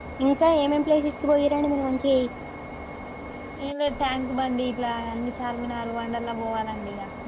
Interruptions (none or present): none